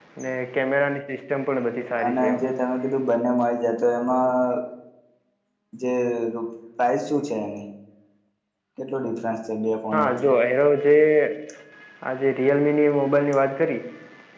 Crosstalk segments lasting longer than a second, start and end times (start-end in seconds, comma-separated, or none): none